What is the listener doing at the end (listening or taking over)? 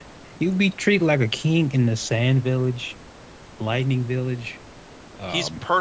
taking over